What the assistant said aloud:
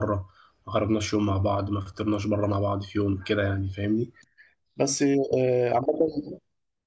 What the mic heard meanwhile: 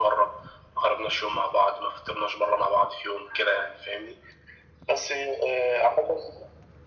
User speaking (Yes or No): No